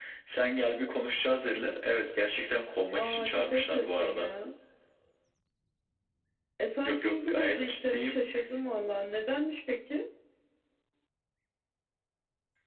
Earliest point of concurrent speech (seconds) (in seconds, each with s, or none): 2.9 s